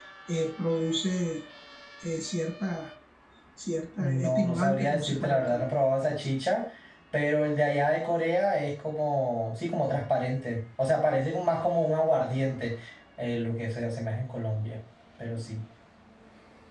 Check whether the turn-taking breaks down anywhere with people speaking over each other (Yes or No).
Yes